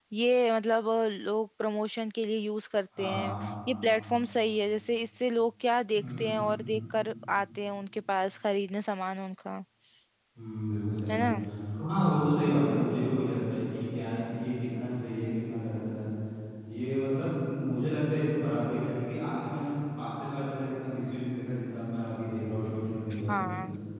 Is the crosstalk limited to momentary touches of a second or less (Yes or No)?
Yes